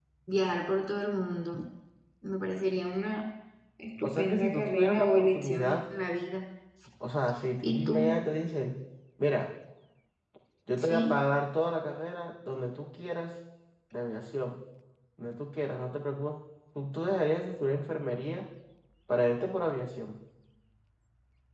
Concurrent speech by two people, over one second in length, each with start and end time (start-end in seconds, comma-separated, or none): 4.0-5.8